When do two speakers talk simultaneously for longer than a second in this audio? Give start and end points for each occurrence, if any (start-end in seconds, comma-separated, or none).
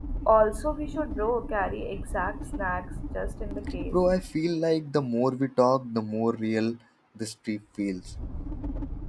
none